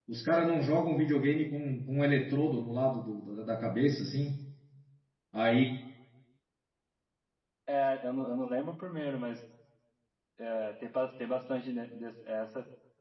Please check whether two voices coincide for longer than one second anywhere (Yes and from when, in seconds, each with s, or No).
No